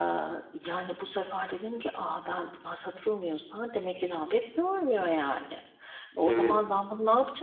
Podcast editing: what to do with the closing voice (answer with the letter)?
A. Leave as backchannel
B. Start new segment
A